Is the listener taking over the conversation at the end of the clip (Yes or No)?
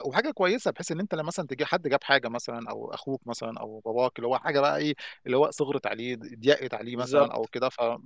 No